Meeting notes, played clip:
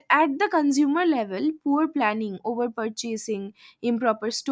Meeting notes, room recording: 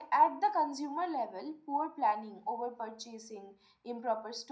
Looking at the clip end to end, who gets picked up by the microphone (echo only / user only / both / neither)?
echo only